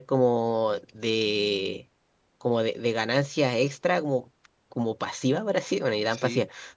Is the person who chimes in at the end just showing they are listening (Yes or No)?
Yes